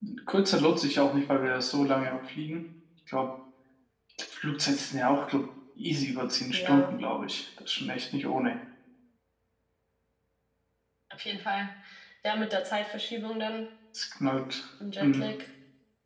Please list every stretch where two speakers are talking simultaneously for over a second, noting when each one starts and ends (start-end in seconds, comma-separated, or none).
none